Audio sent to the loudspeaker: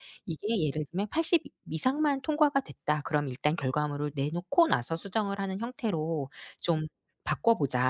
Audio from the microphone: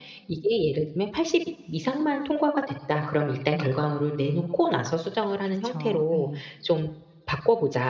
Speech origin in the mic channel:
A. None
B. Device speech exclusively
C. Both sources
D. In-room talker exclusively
C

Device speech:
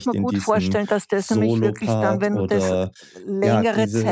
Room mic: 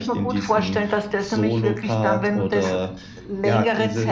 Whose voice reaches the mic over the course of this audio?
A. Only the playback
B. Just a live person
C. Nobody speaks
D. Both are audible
A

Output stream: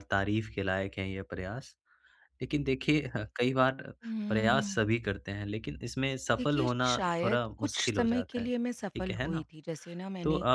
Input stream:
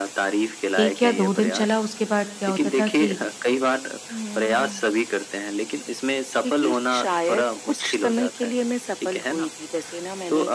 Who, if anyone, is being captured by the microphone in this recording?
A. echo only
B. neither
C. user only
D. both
D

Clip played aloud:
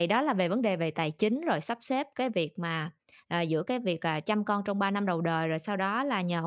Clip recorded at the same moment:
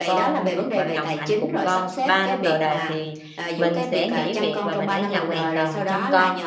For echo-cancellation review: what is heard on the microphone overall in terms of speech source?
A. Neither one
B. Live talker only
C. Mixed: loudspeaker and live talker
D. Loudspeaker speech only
C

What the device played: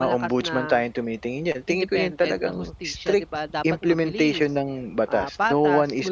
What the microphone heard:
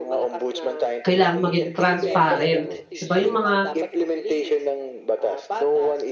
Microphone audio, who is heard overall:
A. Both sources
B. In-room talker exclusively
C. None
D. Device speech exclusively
A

